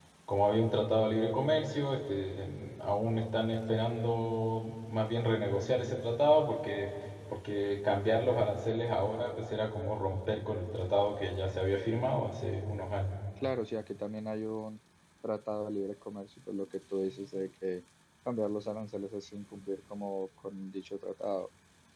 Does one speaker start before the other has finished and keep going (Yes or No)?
No